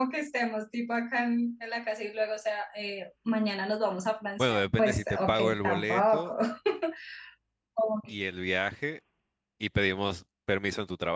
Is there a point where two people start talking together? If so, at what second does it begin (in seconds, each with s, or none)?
4.4 s